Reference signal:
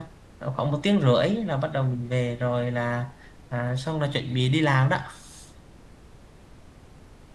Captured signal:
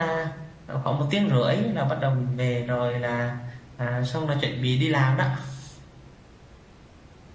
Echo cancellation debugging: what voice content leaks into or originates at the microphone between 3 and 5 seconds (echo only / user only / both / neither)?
echo only